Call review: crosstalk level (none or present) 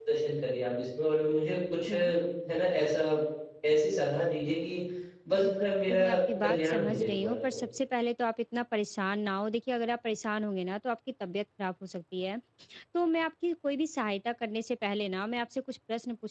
present